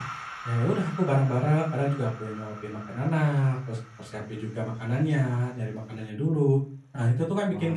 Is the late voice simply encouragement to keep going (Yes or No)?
Yes